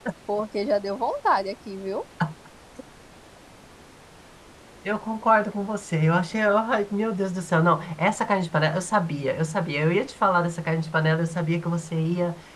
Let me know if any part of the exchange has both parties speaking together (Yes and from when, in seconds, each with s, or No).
No